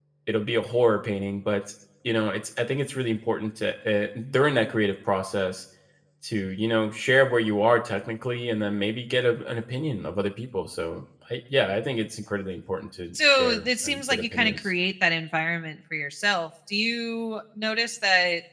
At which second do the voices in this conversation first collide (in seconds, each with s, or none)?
13.1 s